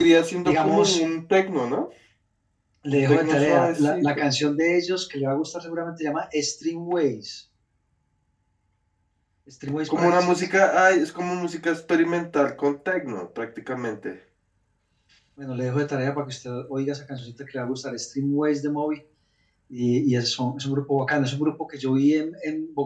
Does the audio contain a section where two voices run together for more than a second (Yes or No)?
Yes